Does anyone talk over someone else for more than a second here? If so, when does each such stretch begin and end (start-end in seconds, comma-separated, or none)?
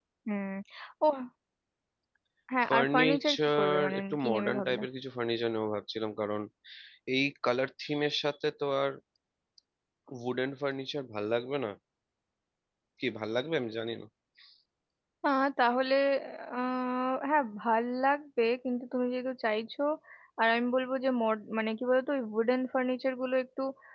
2.7-4.8